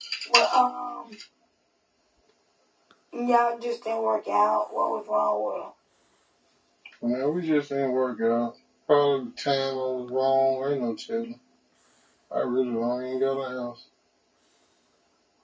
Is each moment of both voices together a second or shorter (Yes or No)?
Yes